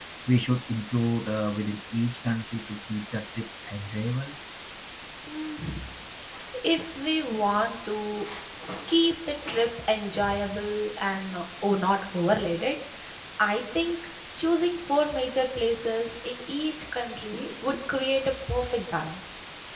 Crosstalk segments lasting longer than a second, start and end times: none

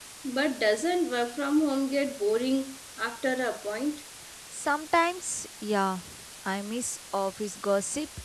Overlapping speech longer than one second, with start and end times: none

